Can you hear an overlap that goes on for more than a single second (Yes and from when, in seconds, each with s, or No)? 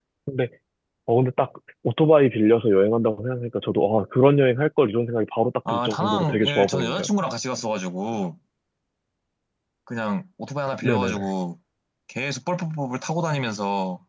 Yes, from 5.7 s